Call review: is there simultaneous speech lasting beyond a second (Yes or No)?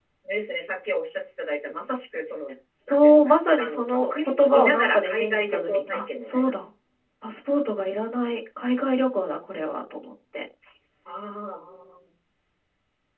Yes